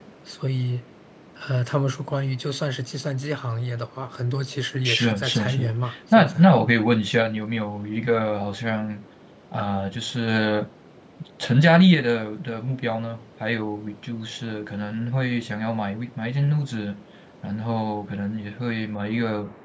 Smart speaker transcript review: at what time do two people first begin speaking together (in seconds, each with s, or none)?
4.8 s